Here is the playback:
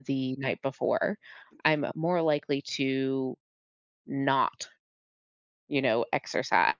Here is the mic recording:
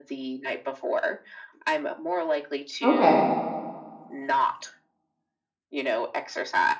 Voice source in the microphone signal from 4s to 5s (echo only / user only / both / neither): echo only